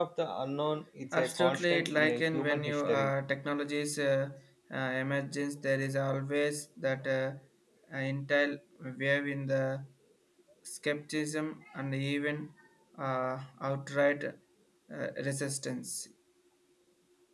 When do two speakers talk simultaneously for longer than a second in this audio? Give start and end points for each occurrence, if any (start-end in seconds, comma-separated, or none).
1.1-3.1